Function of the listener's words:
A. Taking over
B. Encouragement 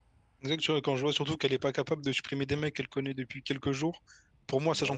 B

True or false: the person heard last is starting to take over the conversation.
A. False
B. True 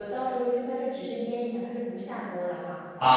B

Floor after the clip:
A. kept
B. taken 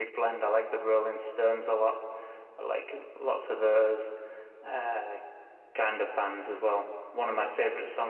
A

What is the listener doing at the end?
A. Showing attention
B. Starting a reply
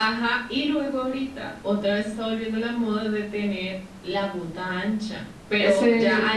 A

